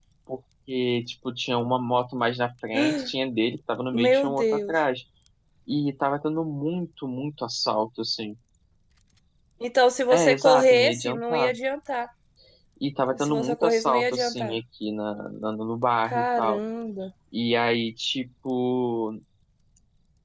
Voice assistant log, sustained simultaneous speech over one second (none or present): present